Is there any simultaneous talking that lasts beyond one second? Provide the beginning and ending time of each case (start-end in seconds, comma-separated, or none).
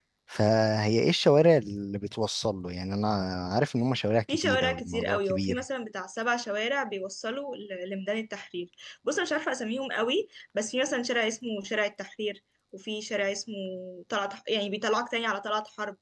4.3-5.6